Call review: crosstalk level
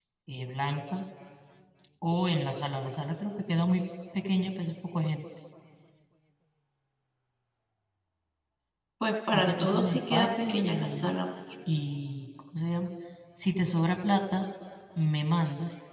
present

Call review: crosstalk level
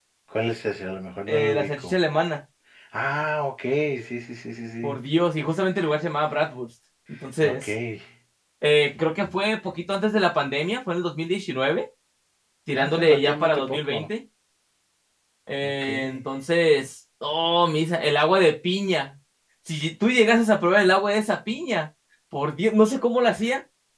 present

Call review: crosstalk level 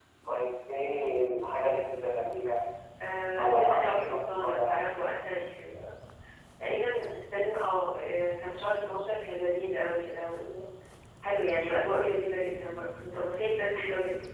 present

